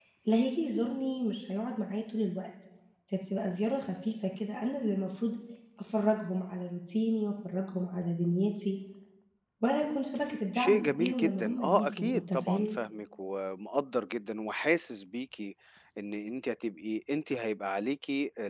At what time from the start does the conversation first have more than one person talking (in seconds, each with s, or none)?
10.6 s